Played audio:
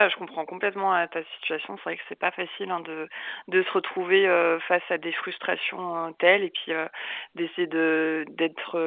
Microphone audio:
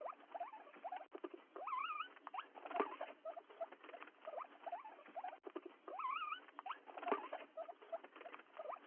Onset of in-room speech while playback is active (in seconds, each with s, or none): none